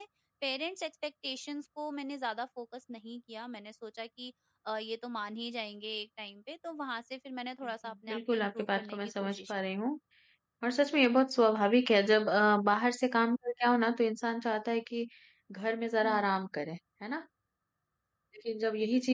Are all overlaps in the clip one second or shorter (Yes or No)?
No